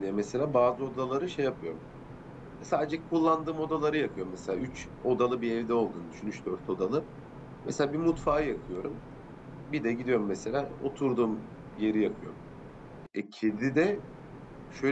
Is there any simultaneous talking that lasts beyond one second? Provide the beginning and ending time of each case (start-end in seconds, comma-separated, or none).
none